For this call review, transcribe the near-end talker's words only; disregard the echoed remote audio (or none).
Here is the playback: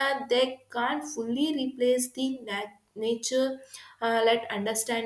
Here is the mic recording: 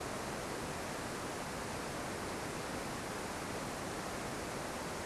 none